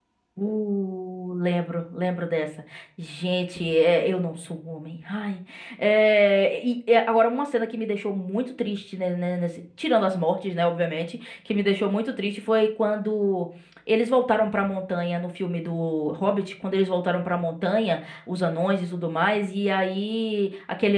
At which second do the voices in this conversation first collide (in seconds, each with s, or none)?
none